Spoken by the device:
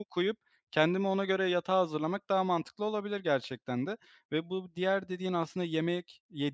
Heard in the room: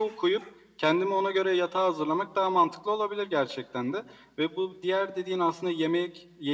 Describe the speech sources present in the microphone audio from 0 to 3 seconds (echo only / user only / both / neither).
echo only